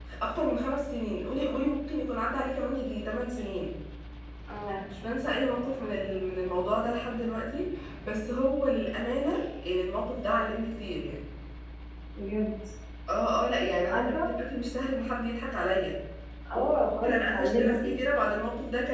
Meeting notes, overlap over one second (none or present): present